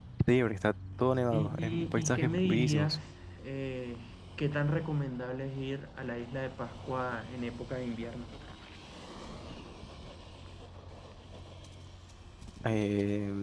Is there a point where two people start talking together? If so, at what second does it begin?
1 s

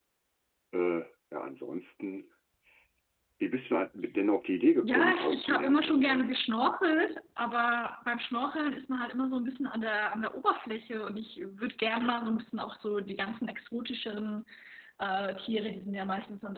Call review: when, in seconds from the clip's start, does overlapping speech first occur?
5 s

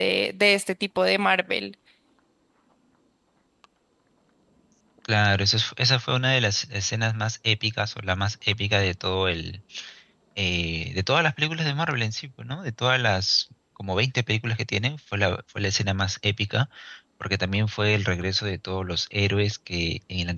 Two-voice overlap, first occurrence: none

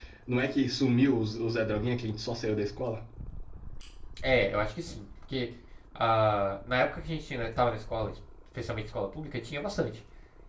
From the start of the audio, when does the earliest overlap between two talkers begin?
none

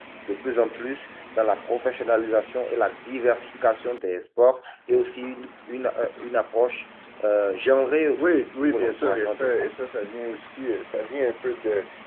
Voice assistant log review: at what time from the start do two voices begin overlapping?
8 s

